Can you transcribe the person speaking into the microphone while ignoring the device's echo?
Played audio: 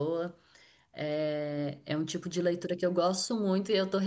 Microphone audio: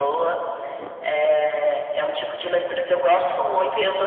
none

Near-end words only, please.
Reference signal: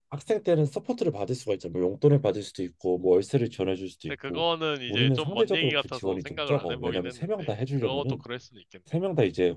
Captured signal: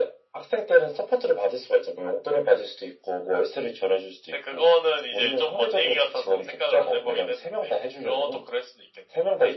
none

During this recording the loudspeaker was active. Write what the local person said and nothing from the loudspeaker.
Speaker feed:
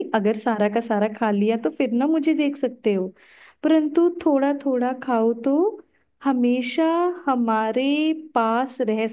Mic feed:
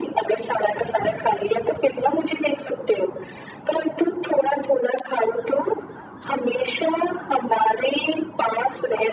none

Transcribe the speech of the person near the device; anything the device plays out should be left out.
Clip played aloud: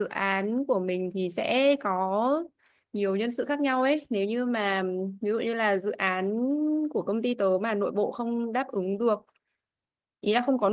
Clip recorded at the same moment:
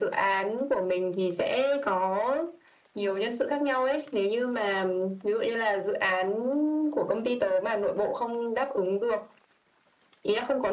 none

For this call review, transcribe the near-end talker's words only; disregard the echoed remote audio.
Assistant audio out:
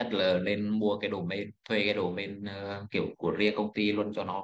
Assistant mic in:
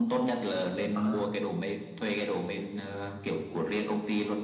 ờ

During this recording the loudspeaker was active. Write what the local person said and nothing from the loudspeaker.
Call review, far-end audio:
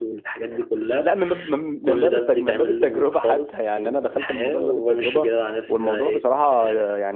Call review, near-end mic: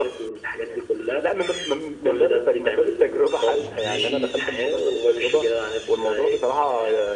ببقى ماشي

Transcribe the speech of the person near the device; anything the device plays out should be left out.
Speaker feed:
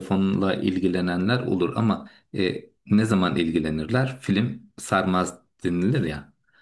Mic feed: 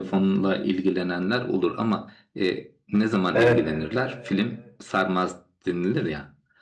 Evet,

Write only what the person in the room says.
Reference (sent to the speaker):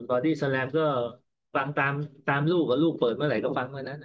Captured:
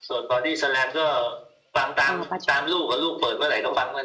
เออปา

